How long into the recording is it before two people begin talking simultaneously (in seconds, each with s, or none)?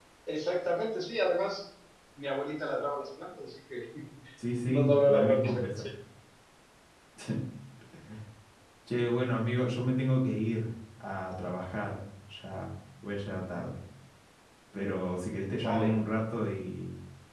4.6 s